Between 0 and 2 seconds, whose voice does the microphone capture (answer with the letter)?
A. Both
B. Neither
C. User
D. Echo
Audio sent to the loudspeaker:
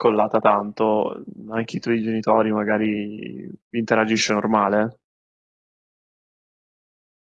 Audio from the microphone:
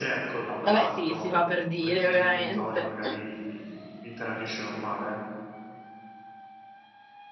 A